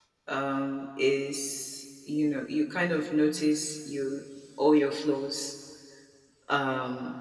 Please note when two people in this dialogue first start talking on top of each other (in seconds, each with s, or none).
none